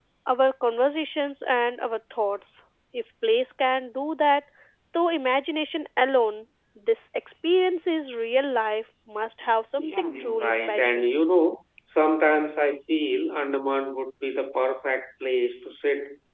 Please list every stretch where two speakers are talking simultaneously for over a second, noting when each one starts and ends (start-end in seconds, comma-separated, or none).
9.8-11.1